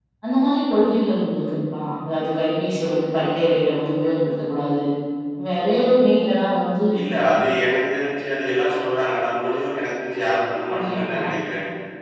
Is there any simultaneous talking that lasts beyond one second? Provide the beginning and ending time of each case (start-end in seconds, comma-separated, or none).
none